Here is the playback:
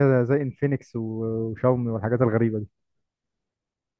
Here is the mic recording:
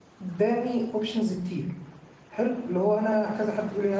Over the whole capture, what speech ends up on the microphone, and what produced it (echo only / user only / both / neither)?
user only